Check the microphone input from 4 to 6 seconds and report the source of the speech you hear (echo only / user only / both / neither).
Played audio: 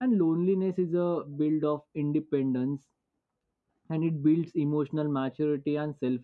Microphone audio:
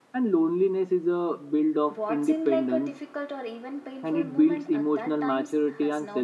both